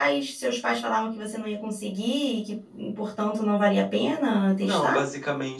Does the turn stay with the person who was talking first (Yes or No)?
No